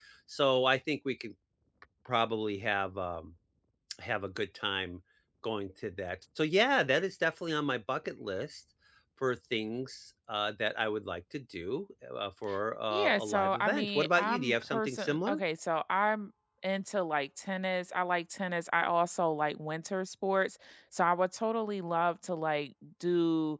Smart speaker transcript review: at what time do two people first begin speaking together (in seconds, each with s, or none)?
12.9 s